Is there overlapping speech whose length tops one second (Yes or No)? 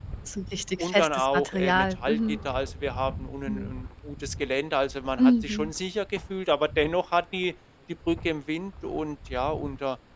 Yes